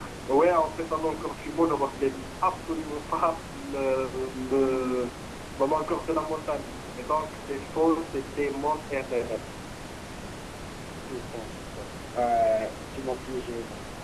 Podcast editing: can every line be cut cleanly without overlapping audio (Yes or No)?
Yes